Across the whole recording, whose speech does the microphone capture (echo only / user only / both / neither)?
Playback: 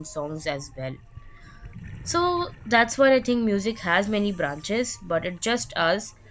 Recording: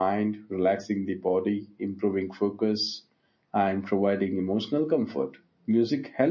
user only